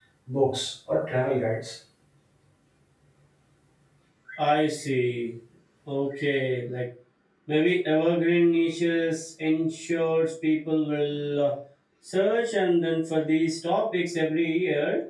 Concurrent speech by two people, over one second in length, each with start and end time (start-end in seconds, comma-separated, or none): none